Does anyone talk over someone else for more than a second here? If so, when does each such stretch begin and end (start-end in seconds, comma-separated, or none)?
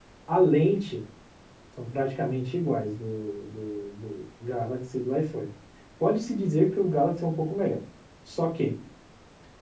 none